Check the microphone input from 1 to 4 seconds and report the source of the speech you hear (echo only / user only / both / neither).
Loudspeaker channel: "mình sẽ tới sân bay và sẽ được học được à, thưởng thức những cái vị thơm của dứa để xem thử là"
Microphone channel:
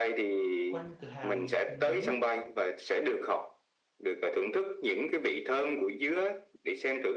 both